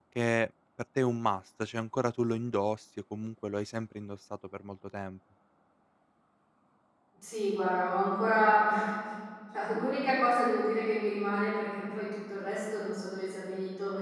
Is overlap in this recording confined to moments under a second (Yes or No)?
Yes